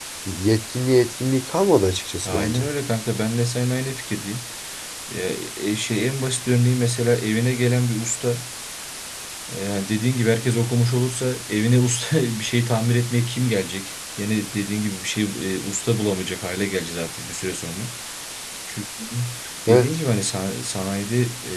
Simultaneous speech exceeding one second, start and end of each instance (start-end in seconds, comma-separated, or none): none